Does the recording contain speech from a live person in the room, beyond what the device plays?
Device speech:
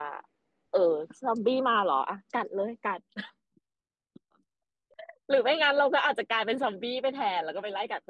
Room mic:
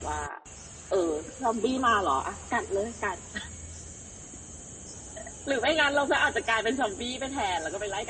No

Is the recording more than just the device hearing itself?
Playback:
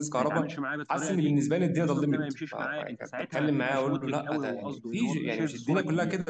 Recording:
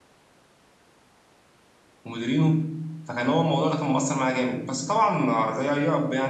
Yes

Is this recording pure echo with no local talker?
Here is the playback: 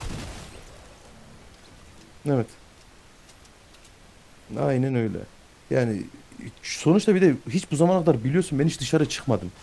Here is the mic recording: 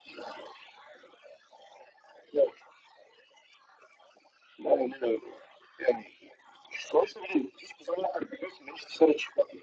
Yes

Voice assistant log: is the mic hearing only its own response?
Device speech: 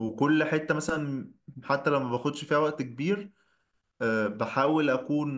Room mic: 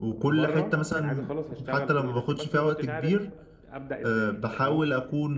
No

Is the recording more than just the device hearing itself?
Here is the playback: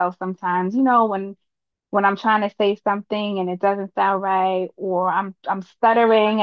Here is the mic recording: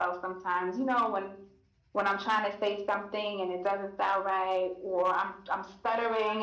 No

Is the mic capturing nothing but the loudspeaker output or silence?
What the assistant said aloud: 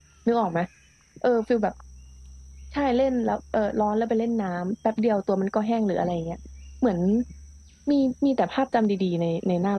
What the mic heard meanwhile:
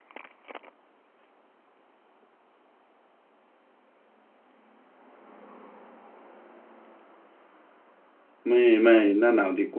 No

